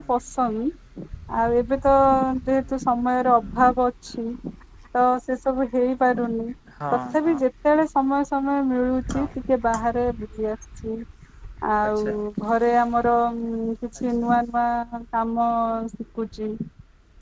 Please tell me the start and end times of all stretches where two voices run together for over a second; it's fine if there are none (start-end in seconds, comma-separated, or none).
none